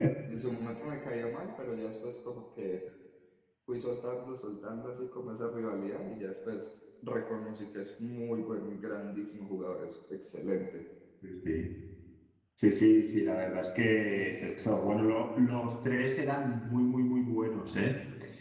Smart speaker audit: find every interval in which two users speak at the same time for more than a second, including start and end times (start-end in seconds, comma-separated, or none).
none